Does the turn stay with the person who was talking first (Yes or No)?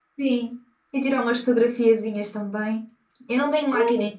Yes